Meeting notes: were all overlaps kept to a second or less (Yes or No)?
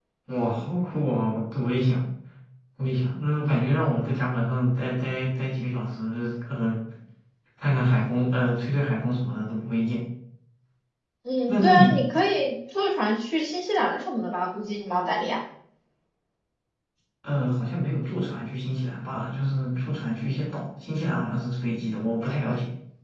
Yes